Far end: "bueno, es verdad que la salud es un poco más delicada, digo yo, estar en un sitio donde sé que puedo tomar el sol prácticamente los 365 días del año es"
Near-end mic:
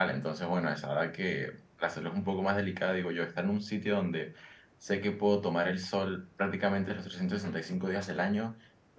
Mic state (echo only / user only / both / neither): echo only